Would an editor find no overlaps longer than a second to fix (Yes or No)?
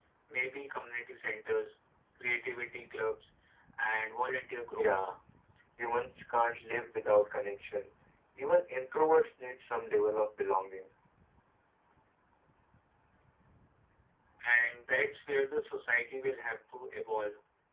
Yes